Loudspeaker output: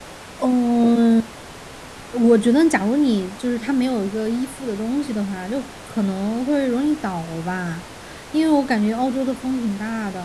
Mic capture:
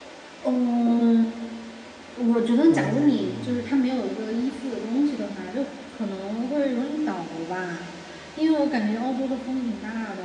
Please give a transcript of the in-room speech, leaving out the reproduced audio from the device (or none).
哦，